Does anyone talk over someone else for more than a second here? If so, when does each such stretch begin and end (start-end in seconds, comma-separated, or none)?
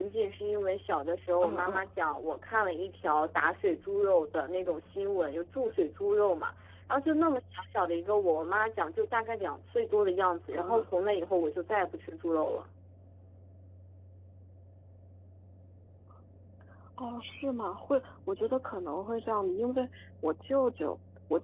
none